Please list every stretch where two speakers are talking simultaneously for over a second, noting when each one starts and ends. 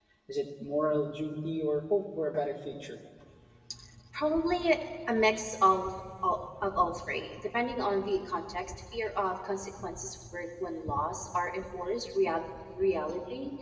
none

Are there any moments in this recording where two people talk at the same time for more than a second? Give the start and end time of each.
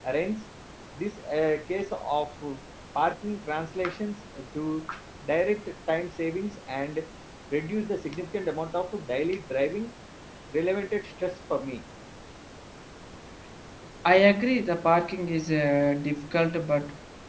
none

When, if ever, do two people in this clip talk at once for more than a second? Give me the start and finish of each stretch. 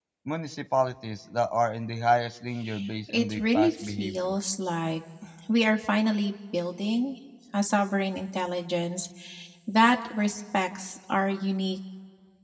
3.1-4.4

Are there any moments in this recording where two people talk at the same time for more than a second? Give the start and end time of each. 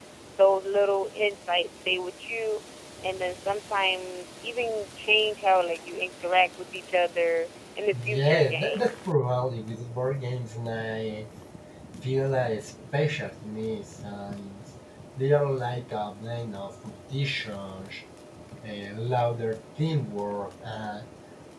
7.9-9.2

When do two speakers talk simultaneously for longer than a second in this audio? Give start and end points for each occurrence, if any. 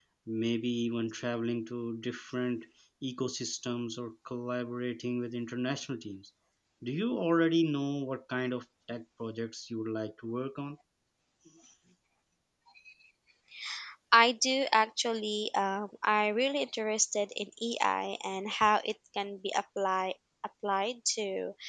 none

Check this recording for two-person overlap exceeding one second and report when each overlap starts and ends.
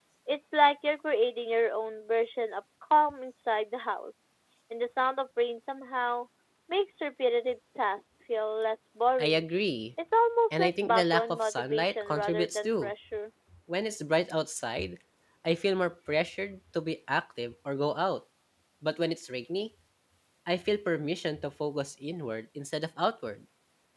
10.5-12.9

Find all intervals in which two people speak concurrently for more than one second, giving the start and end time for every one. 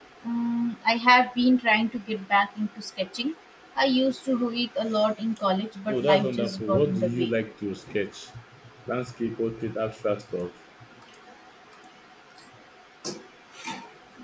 5.9-7.3

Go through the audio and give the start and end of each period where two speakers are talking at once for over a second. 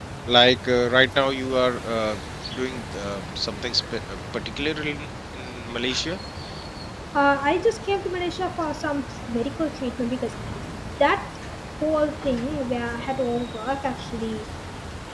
none

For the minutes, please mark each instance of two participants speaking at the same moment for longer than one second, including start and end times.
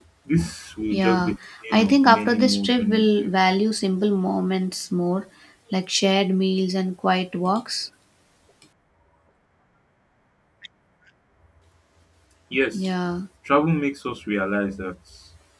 1.7-3.3

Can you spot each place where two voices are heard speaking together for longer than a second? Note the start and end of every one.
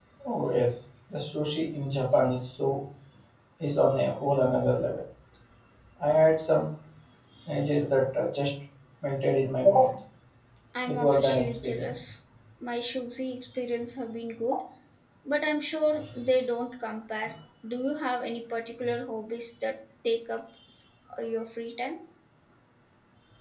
10.9-12.1

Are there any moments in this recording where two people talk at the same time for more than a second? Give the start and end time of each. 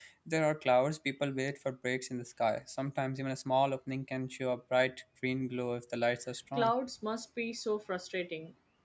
none

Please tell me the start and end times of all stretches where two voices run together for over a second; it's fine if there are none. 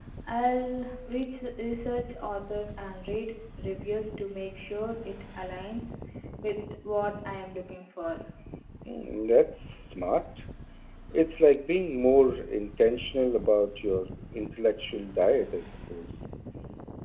none

